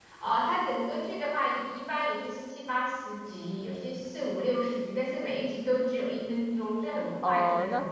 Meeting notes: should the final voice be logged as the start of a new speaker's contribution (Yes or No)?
Yes